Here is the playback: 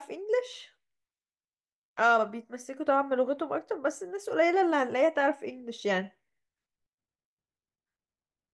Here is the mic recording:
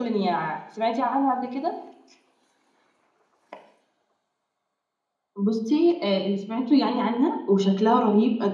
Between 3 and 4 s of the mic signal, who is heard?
neither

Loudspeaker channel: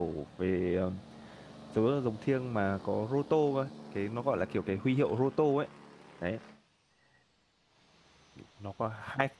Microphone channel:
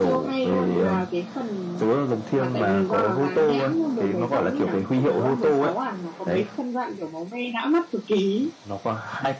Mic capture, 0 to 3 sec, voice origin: both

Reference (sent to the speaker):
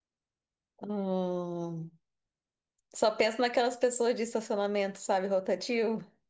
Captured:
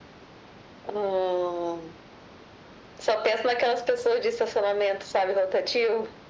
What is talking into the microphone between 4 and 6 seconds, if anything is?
echo only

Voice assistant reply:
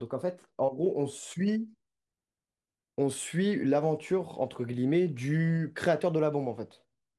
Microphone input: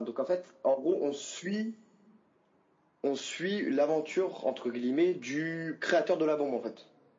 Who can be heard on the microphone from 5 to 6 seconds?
echo only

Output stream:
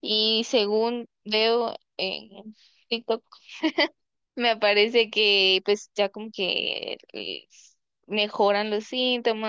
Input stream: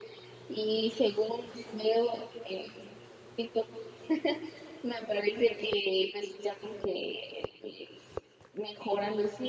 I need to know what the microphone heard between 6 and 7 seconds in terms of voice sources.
echo only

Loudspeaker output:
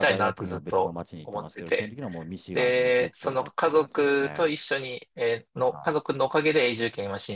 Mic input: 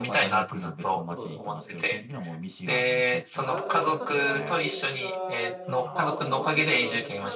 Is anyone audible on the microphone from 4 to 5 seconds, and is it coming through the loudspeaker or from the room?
both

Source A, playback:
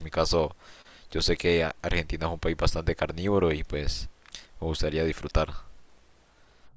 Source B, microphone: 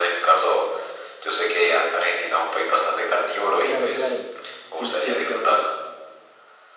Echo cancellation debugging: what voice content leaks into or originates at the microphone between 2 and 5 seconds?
both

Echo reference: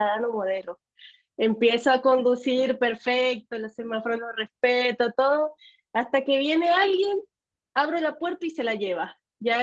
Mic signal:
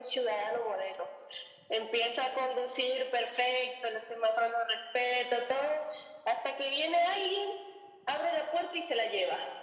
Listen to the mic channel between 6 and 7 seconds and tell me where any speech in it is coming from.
echo only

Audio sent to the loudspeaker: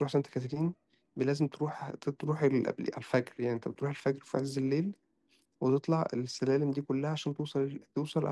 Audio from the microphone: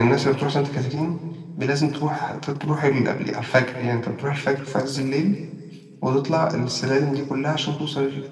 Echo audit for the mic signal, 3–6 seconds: echo only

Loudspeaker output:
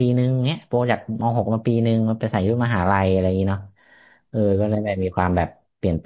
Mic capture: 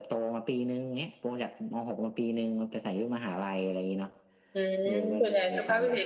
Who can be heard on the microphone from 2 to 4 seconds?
echo only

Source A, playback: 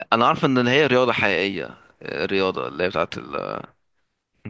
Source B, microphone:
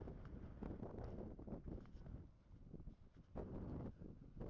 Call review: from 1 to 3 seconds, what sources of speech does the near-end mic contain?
neither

